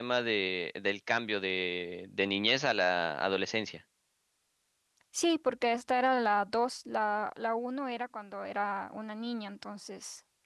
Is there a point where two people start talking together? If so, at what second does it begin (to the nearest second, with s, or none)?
none